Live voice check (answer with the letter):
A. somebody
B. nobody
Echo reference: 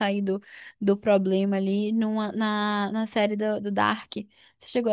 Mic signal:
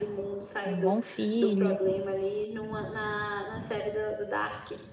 A